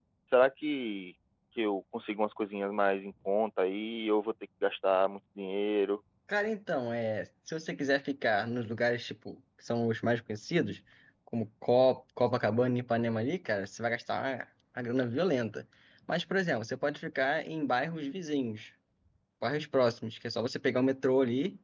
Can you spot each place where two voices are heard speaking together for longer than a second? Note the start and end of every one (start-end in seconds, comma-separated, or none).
none